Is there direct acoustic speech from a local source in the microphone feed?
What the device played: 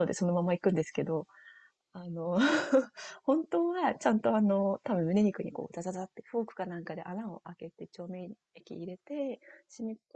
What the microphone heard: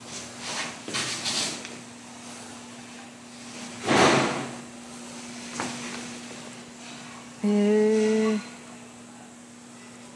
Yes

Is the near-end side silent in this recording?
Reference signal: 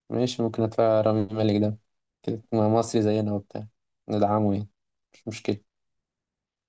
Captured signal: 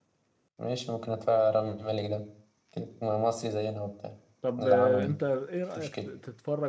No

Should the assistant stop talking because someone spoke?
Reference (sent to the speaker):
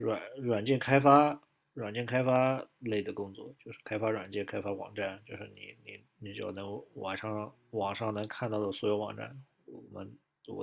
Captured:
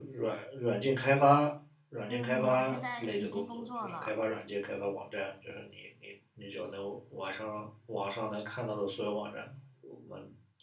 Yes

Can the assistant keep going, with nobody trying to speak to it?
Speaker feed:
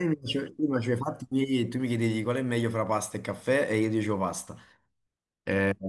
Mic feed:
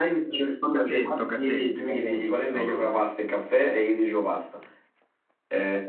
No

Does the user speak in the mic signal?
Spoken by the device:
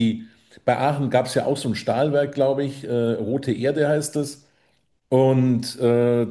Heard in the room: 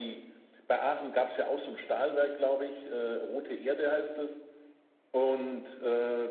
No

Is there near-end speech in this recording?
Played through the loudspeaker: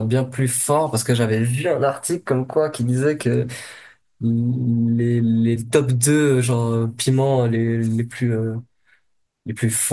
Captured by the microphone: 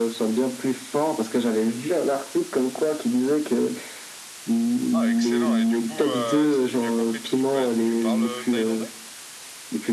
Yes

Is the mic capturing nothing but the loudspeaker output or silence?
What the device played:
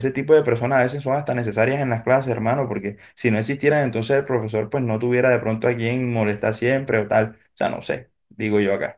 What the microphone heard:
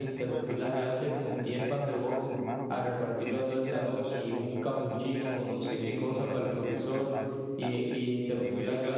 No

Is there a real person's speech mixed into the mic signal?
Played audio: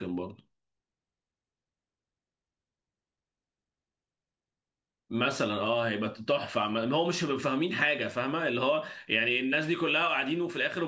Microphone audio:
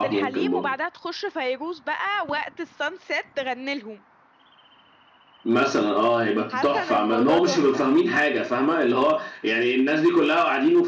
Yes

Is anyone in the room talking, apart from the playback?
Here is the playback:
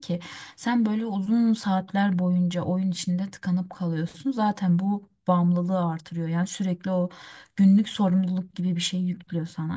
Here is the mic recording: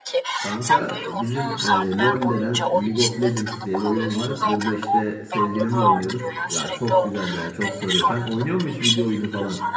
Yes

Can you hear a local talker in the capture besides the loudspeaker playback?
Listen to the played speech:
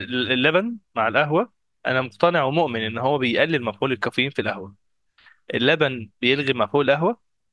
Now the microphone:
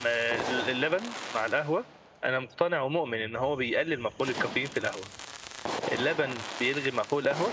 No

